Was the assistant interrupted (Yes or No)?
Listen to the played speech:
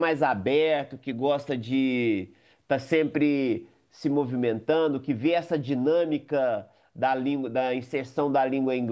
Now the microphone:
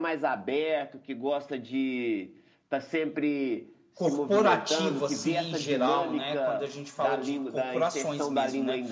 Yes